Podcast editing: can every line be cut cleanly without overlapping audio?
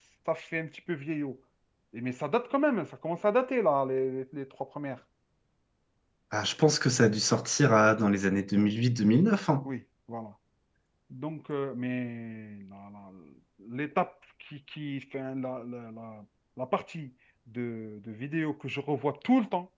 Yes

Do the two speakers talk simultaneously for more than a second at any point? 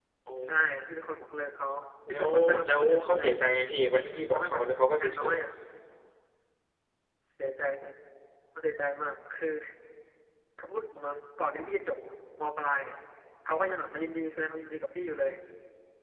Yes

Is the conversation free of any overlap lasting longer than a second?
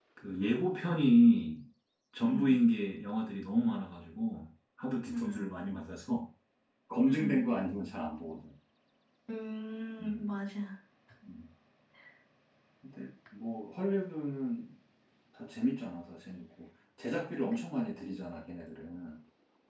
Yes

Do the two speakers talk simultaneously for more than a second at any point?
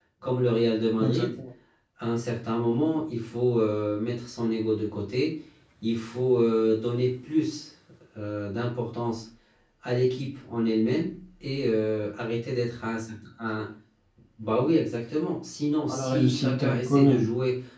Yes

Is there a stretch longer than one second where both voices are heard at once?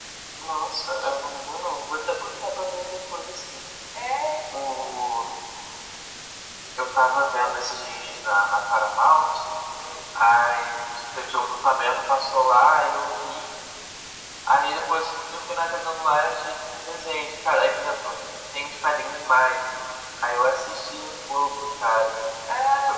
No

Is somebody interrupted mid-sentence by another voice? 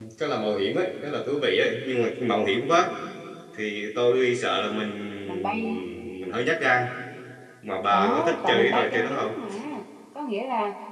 Yes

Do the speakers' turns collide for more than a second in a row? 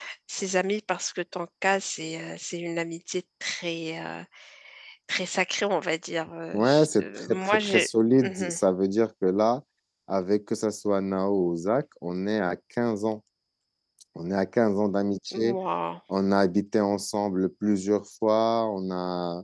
Yes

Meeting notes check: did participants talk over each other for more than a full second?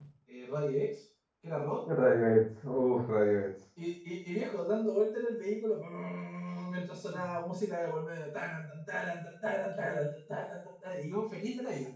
No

